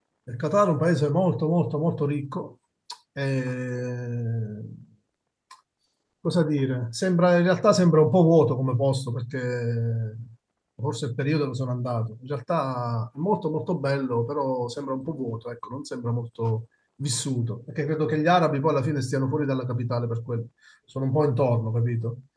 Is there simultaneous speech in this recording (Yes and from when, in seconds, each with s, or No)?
No